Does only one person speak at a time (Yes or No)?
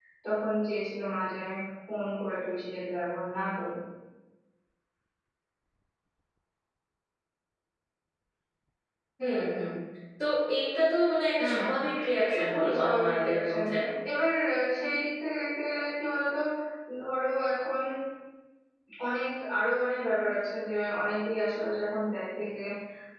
No